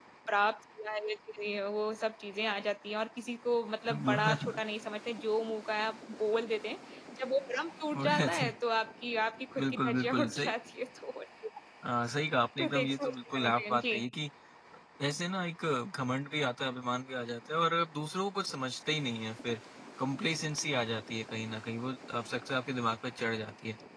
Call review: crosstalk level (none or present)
present